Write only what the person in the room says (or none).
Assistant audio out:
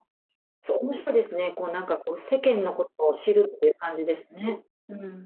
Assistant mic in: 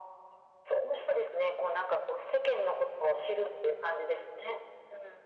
none